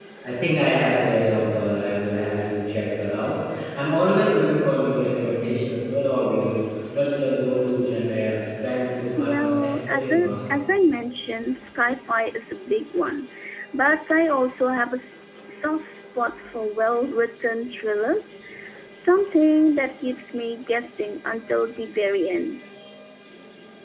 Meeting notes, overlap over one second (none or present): present